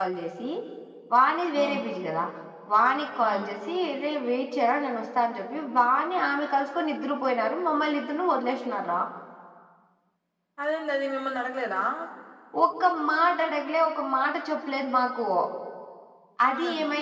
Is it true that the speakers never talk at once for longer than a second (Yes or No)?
Yes